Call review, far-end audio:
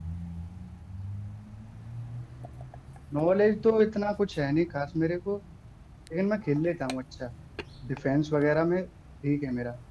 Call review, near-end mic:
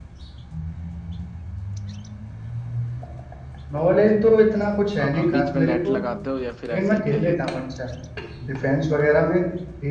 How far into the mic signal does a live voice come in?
5 s

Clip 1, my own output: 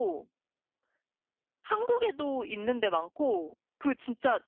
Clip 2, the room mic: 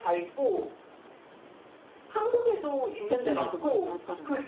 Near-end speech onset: 3 s

